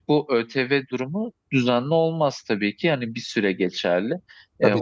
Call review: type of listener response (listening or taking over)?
listening